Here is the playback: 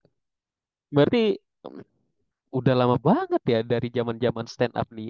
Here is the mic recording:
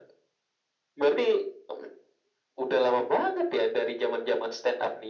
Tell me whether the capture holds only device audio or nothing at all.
Yes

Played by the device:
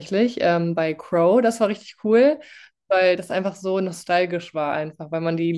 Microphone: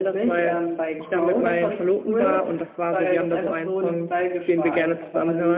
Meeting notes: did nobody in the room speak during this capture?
No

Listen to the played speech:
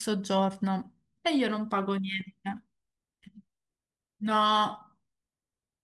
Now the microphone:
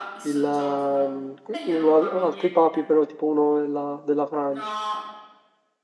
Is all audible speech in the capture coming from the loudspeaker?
No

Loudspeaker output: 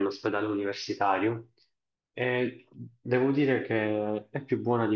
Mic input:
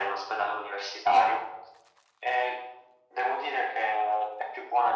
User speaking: No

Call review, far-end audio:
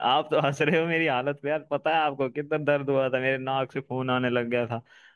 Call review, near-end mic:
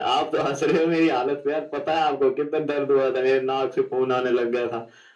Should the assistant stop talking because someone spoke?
No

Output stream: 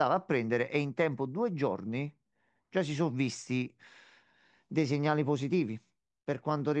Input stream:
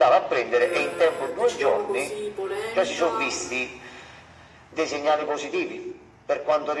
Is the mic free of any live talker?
No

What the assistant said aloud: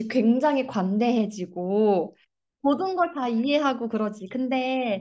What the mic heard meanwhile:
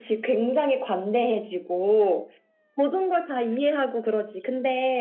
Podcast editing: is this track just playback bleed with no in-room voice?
Yes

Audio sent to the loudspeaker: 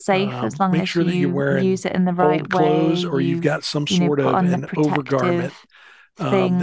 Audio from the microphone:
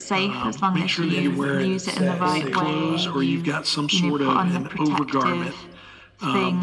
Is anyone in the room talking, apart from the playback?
Yes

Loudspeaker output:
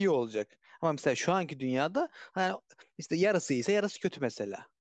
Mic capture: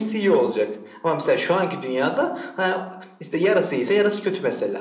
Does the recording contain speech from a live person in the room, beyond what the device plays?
No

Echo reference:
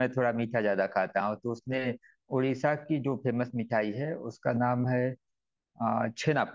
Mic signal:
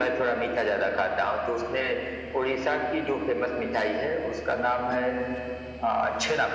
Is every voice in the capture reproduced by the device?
Yes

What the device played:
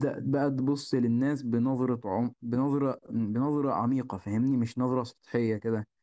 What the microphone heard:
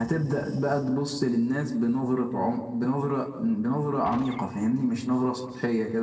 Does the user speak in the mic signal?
No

